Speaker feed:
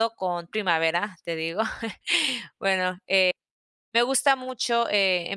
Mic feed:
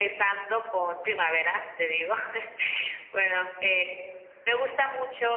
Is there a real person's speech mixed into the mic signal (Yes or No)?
No